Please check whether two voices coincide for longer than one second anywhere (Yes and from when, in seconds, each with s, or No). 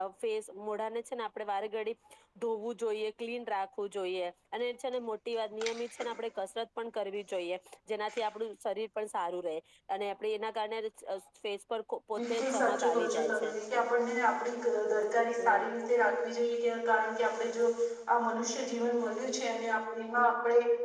Yes, from 12.2 s